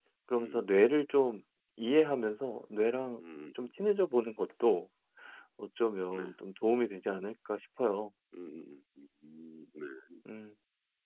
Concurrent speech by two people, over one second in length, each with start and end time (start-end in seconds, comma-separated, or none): none